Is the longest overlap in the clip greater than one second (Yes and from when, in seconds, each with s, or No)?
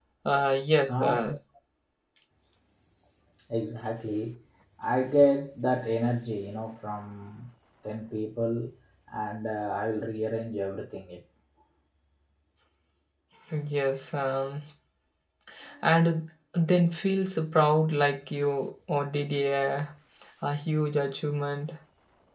No